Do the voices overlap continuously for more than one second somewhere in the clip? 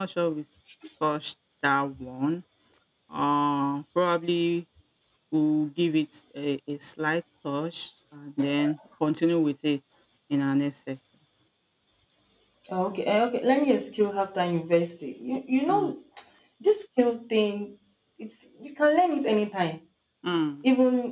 No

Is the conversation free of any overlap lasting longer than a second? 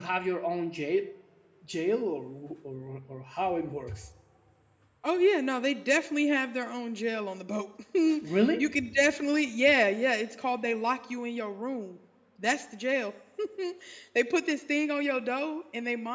Yes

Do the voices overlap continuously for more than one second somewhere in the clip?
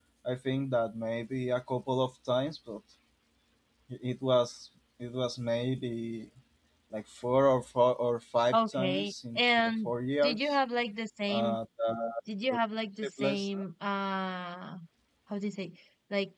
Yes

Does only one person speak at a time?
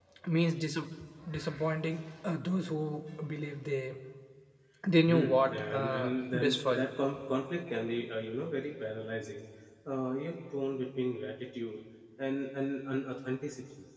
No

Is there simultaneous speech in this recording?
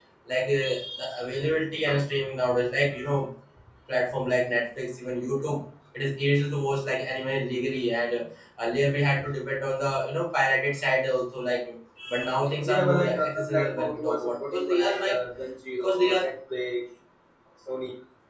Yes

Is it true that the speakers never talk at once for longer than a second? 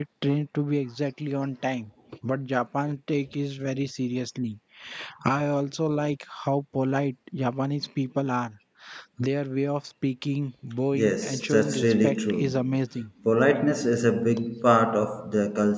No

